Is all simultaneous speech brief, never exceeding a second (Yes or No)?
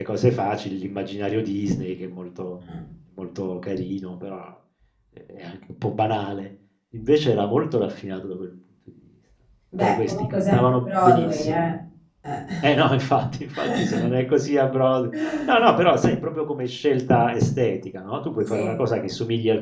No